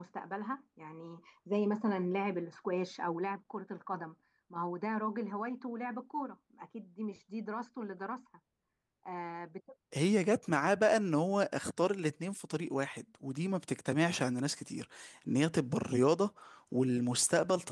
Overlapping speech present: No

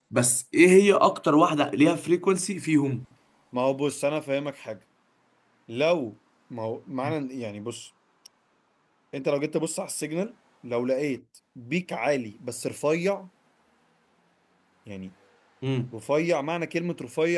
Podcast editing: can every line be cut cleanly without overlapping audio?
Yes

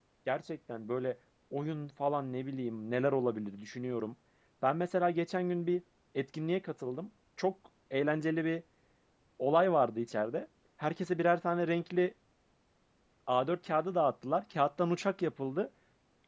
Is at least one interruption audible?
No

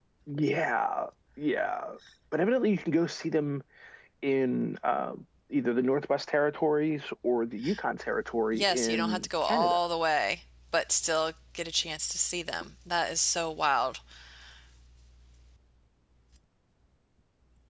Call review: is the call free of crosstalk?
No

